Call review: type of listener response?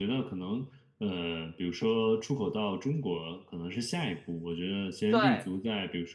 listening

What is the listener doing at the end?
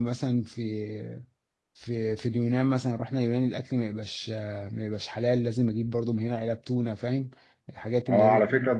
taking over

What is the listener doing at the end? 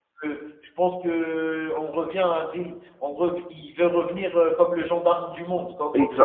taking over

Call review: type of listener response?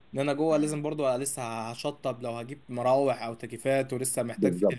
listening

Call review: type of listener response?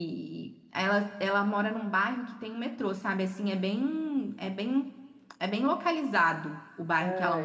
taking over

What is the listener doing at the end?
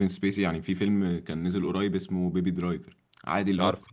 listening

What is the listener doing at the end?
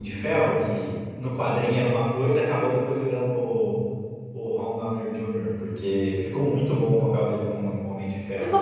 taking over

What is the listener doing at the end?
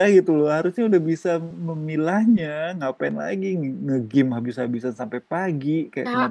taking over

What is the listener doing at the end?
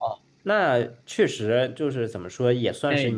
listening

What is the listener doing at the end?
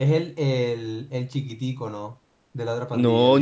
taking over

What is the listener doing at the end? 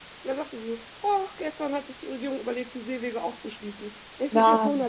listening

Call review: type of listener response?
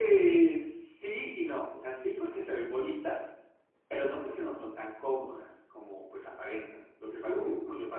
listening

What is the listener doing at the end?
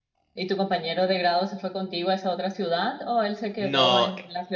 listening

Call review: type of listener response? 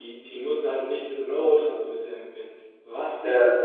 listening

